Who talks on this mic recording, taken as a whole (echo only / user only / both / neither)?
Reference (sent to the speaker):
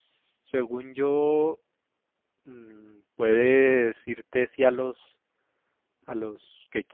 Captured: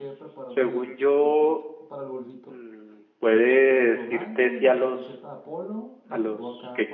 both